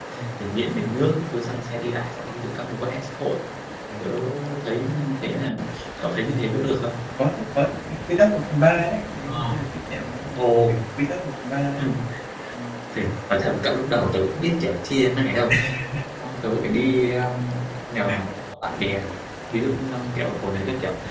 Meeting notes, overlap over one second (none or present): none